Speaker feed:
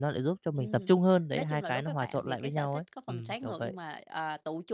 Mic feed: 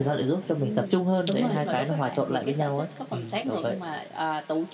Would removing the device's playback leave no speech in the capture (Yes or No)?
No